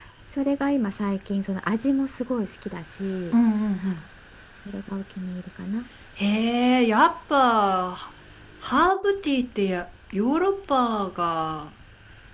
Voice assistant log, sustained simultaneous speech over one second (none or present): none